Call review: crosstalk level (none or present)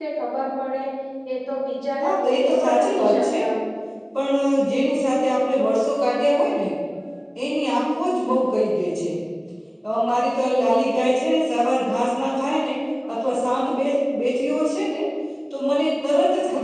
present